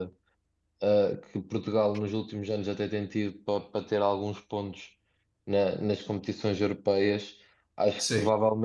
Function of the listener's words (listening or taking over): listening